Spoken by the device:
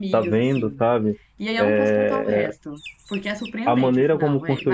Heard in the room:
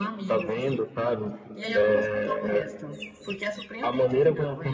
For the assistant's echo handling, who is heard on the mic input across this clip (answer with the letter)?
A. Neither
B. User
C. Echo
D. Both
C